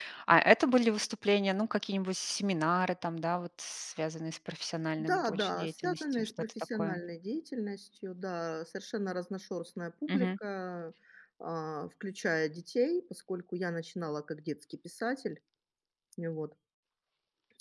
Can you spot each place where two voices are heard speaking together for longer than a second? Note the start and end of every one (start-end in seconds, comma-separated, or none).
5.0-7.0